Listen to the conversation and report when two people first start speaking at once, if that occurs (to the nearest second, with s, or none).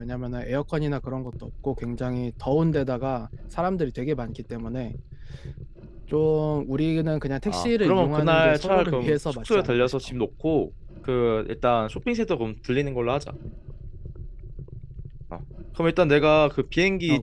7 s